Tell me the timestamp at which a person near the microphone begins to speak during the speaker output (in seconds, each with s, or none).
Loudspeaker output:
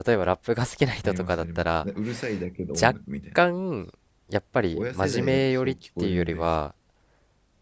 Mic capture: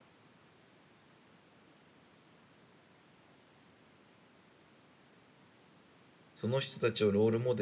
6.3 s